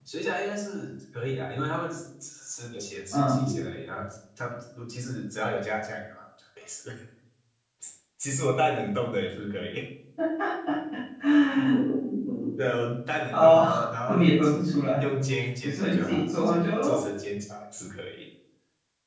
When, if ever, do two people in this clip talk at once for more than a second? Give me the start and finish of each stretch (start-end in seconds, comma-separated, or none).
15.6-17.0